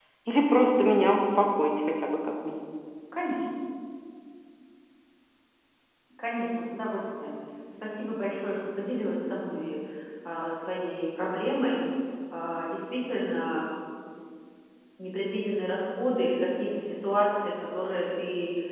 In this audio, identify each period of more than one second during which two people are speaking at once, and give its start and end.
none

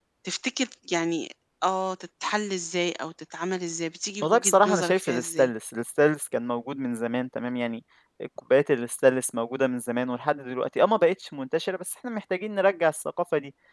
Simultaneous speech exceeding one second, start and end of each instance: 4.2-5.5

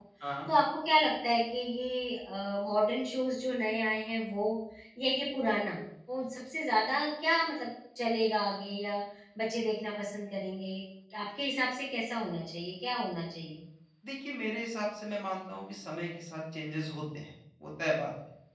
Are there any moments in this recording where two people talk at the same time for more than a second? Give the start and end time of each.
none

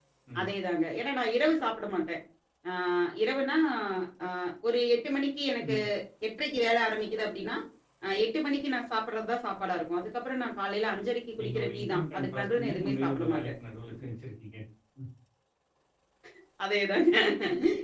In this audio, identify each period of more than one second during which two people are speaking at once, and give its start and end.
11.4-13.5

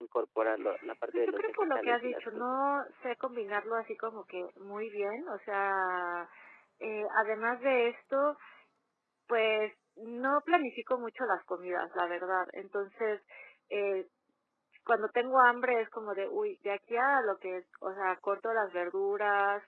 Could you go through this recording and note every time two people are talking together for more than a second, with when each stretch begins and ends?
1.1-2.4

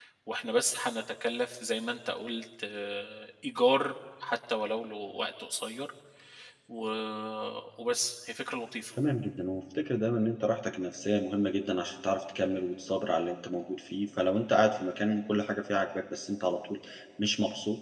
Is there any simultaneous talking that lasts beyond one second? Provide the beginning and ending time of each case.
none

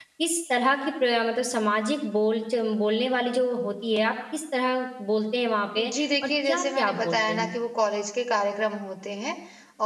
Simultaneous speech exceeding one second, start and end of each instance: 5.8-7.5

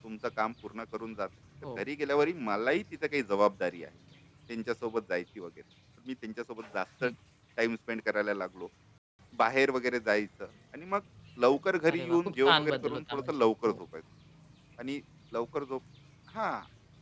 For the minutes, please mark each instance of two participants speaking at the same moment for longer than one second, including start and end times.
11.9-13.8

